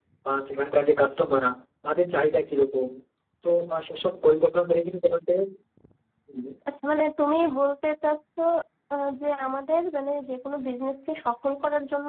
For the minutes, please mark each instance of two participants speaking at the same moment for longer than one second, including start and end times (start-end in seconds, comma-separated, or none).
none